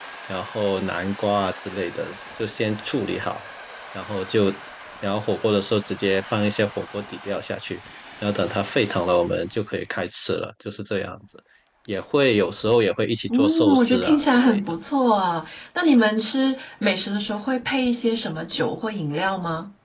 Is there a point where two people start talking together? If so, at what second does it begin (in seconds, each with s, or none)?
13.3 s